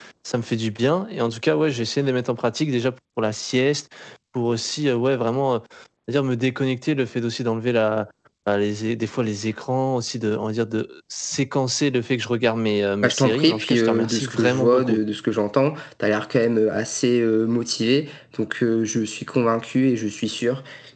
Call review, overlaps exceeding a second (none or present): present